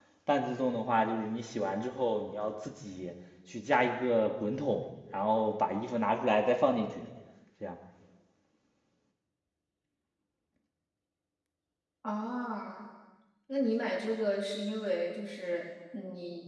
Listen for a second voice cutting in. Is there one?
No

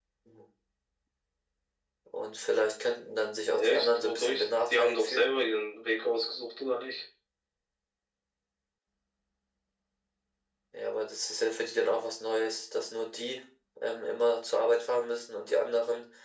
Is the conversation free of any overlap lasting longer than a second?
No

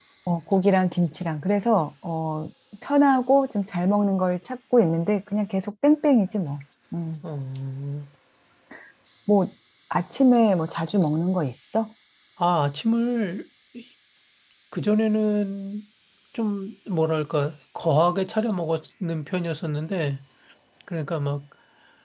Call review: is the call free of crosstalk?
Yes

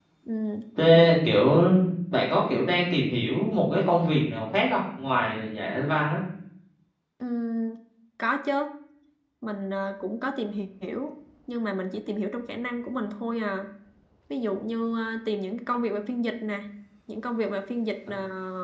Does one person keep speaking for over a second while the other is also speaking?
No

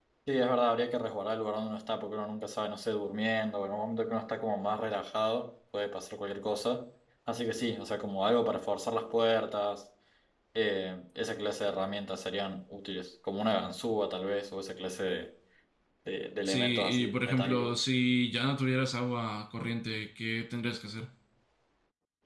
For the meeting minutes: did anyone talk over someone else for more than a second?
Yes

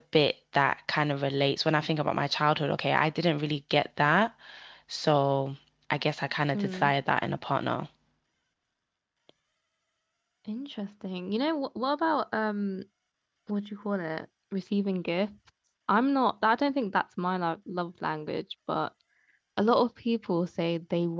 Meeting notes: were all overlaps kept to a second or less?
Yes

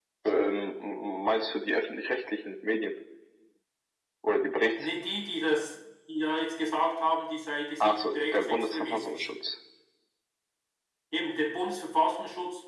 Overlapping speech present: Yes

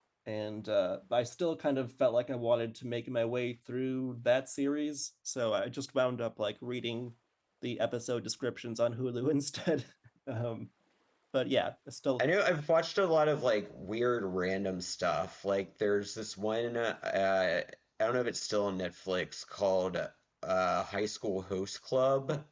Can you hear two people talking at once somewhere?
No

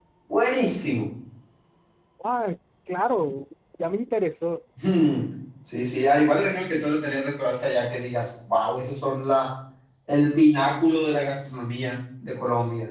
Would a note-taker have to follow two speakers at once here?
No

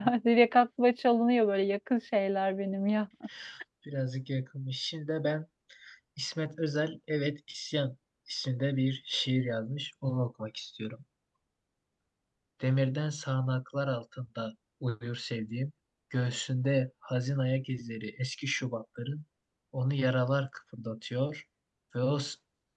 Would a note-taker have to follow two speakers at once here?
No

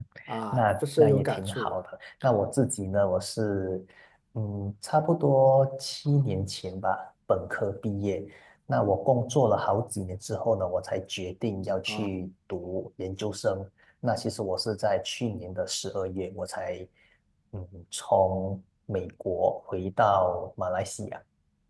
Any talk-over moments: Yes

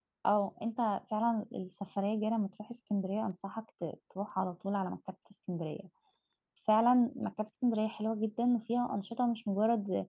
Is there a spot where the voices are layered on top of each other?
No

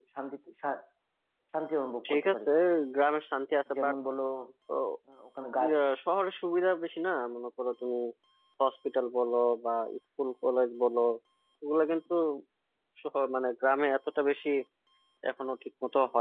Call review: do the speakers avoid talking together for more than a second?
Yes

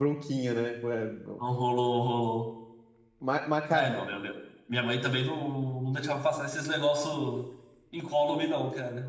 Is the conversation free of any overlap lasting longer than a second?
Yes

